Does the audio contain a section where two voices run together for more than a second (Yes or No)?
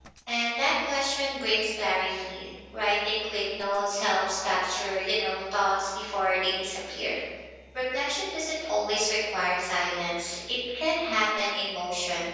No